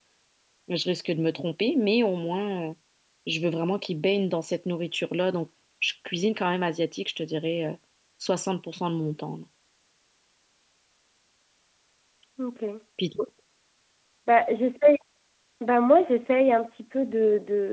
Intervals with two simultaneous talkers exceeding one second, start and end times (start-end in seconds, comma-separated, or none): none